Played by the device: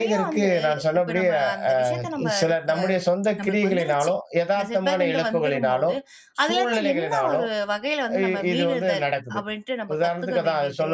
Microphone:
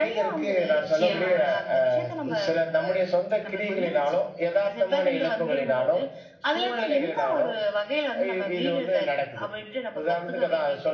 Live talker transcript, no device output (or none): நிச்சயமா, நிச்சயமா.